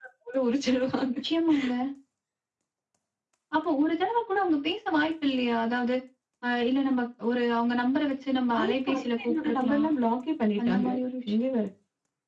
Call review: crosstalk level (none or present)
present